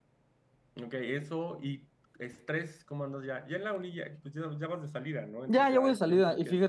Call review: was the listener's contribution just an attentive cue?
No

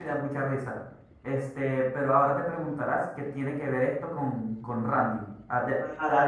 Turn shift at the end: Yes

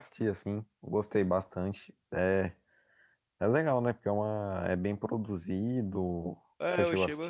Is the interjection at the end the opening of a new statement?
Yes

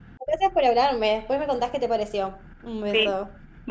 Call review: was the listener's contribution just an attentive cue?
No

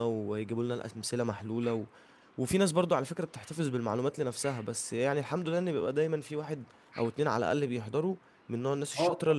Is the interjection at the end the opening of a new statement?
Yes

